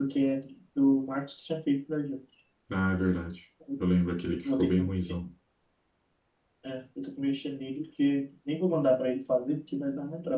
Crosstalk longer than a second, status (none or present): none